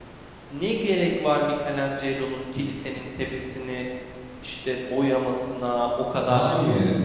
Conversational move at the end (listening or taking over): listening